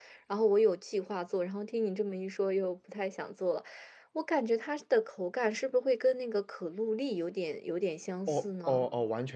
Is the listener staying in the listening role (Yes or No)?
No